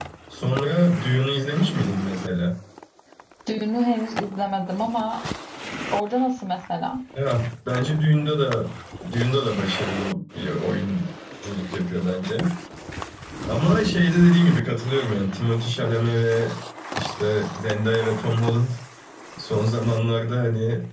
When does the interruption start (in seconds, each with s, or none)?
none